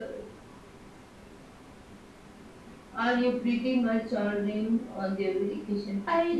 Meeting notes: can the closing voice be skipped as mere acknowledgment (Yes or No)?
No